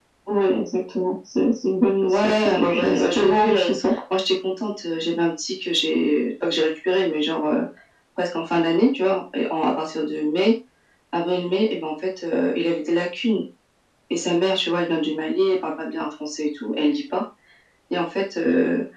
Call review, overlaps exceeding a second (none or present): present